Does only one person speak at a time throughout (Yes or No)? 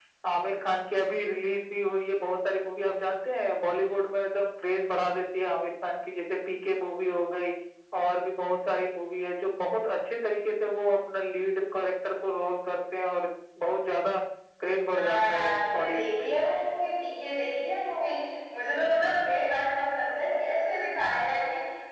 No